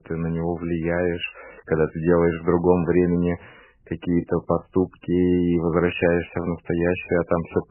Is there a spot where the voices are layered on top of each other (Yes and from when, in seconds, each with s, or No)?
No